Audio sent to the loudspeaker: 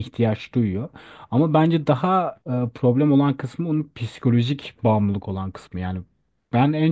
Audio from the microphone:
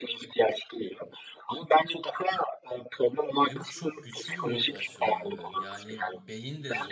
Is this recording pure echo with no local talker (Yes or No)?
No